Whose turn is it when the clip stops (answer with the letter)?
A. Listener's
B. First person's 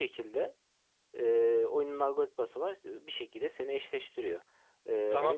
A